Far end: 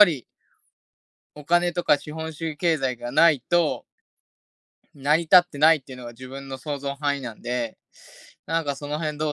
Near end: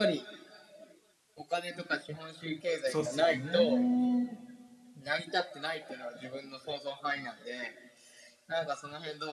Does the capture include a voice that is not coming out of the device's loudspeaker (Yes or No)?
Yes